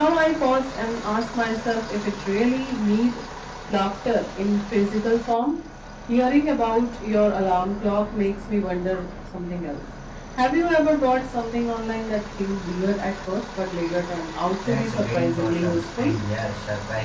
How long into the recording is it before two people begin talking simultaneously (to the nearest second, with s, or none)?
15 s